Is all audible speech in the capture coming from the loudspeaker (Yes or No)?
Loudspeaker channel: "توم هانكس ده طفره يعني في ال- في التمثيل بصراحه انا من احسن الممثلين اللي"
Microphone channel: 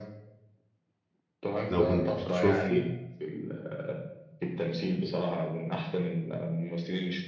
No